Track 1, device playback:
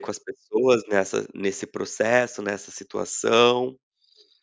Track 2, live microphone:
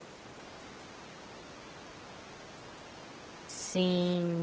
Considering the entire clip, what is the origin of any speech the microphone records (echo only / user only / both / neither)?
user only